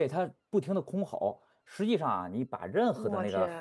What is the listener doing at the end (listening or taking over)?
listening